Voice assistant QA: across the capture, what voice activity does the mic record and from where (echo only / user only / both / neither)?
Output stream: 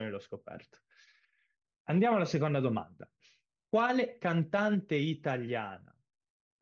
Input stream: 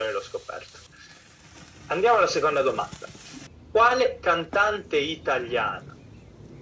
echo only